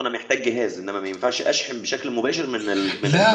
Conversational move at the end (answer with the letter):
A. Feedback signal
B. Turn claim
B